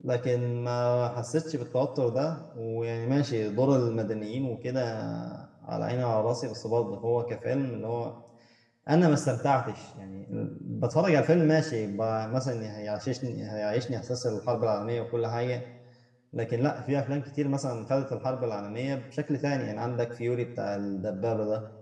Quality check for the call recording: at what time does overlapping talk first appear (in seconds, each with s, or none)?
none